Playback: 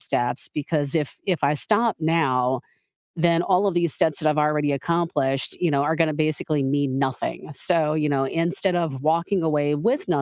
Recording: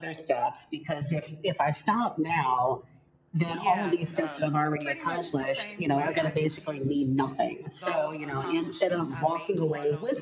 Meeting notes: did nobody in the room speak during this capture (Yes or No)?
No